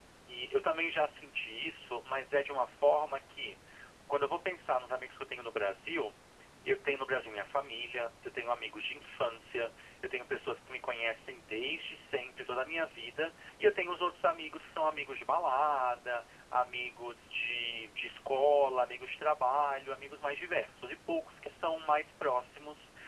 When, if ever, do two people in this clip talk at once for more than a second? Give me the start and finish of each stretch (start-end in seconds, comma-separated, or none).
none